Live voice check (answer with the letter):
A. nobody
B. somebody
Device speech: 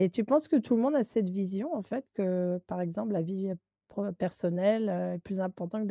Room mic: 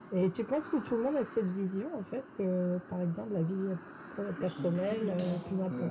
B